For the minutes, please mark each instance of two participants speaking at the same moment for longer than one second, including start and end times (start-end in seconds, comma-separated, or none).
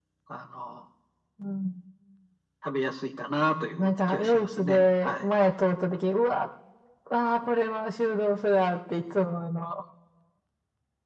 3.8-5.2